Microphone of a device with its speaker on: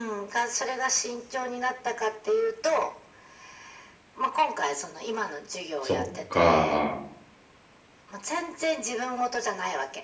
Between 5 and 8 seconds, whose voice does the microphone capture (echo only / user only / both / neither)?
both